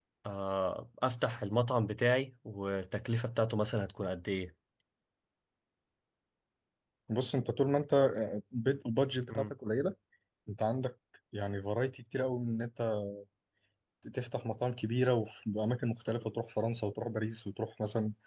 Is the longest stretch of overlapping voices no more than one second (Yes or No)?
Yes